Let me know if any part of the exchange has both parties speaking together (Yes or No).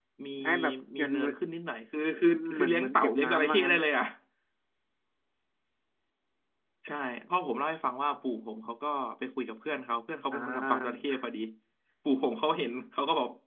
Yes